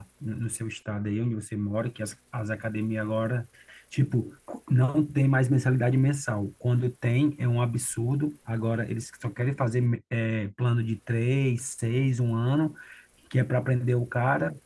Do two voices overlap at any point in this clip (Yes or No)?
No